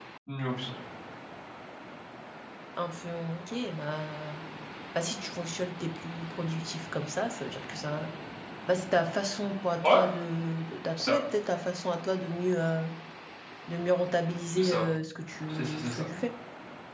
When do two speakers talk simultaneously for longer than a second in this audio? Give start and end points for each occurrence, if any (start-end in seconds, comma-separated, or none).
none